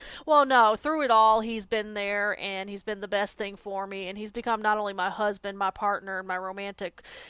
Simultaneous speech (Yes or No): No